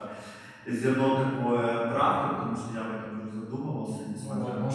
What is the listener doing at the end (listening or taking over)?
taking over